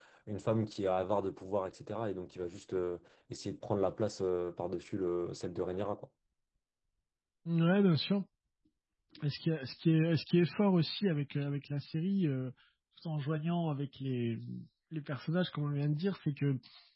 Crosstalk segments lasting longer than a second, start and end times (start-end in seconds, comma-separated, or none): none